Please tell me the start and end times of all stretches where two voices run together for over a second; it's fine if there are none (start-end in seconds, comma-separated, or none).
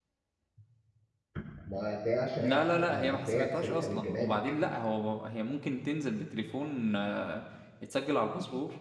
2.4-4.3